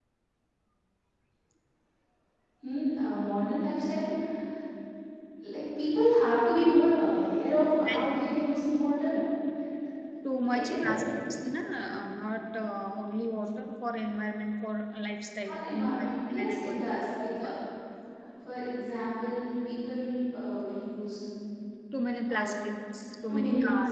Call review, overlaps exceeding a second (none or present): present